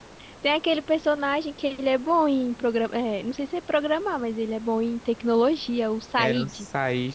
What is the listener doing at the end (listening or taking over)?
taking over